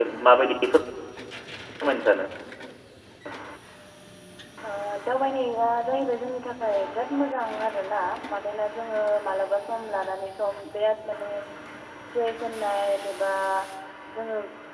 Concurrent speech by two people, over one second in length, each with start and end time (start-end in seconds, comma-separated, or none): none